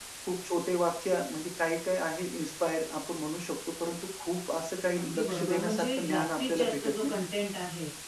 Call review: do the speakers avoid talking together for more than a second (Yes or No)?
No